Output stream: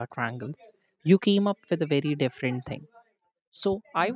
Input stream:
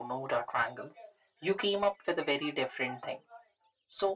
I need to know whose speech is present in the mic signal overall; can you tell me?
echo only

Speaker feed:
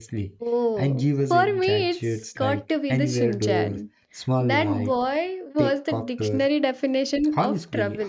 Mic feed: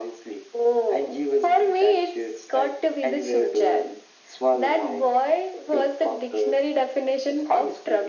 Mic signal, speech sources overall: echo only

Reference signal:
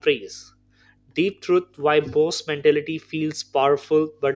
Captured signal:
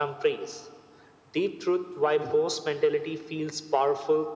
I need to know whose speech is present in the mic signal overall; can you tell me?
echo only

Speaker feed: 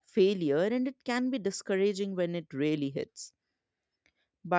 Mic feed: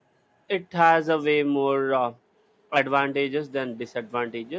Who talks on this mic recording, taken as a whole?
user only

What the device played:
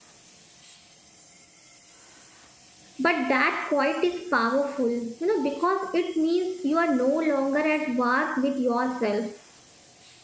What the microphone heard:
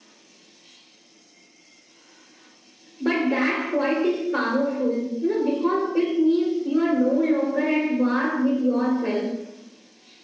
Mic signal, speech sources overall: echo only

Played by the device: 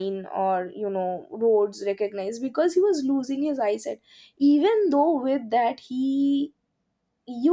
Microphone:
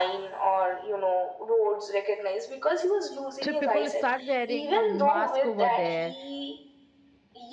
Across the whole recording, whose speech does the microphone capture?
both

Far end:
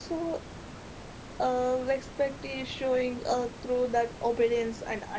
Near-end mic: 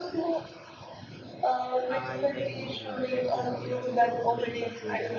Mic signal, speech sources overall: both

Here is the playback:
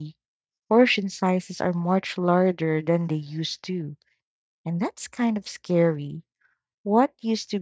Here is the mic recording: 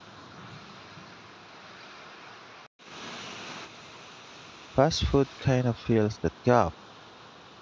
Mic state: user only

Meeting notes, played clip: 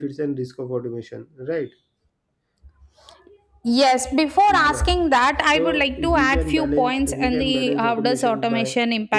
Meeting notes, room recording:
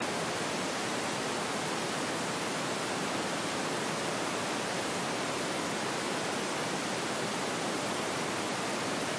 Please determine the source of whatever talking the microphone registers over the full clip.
neither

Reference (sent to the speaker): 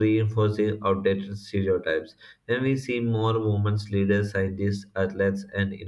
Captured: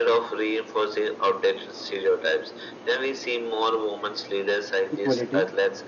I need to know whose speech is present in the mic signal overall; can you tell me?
both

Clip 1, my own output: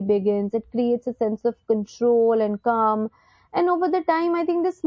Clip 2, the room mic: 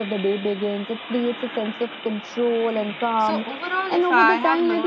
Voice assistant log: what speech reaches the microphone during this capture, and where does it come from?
both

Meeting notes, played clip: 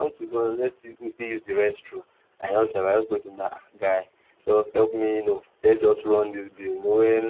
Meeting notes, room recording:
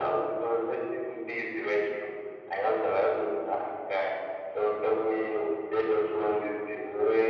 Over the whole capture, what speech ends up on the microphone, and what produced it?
echo only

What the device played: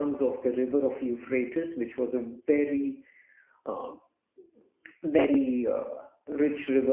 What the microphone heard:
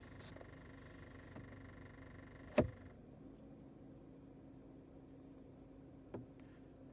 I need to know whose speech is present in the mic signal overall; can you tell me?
neither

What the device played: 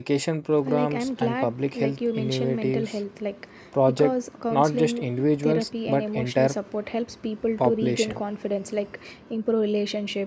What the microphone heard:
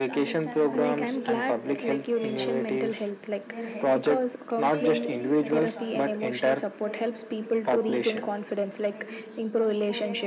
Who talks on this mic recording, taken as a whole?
both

